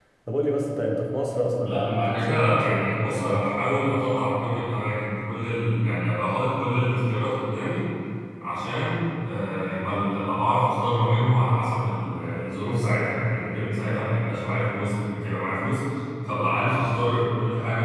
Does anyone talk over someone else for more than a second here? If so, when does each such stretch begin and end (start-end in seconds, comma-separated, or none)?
1.6-3.5